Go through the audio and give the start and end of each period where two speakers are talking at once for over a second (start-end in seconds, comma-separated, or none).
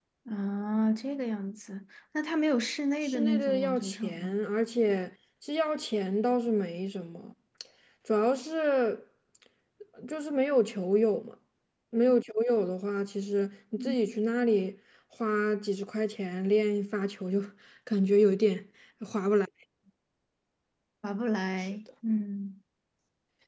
3.0-4.4